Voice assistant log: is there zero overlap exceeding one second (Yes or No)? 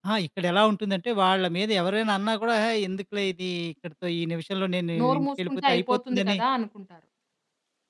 No